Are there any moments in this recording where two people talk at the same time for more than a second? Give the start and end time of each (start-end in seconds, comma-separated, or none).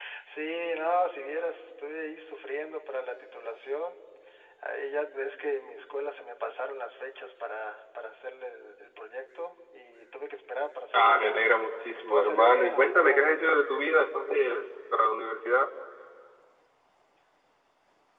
10.9-13.6